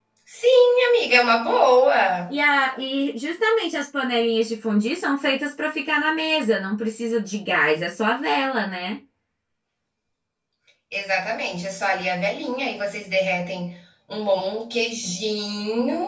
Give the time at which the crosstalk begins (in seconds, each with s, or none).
none